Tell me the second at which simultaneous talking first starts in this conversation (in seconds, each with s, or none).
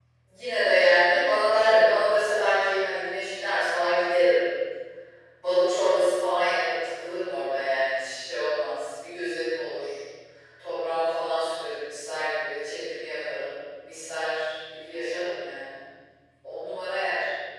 none